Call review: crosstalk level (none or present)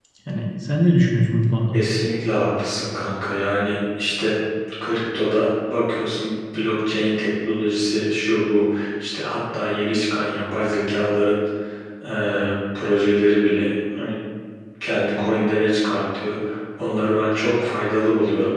none